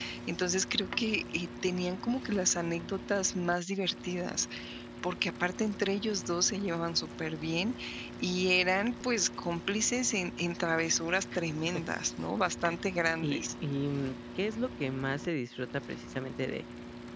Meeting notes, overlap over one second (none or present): none